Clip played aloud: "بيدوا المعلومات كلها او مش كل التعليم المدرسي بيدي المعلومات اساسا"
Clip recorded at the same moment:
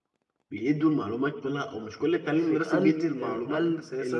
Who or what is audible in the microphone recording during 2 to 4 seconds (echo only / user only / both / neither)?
both